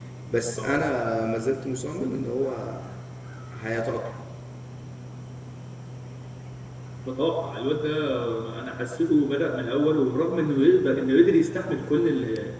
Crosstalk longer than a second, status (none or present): none